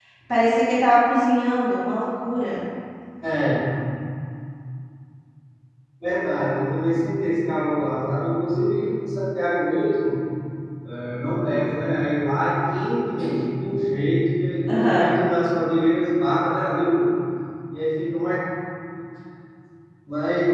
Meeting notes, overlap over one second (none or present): none